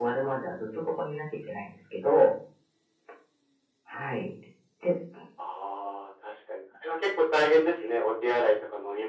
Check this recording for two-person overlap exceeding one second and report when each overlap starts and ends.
none

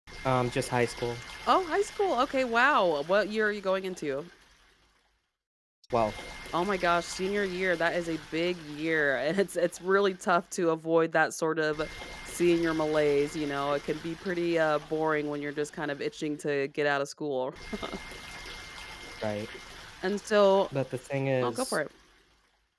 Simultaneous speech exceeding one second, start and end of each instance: none

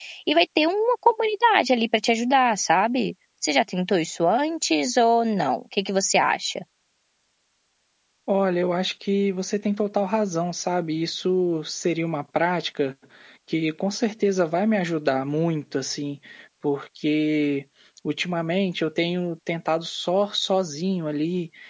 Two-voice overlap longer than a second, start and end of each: none

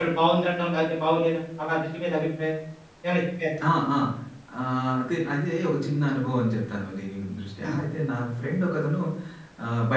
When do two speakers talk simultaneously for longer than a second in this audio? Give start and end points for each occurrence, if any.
none

